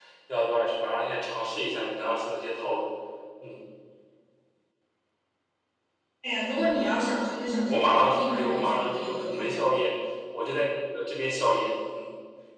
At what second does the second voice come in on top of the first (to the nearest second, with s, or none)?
8 s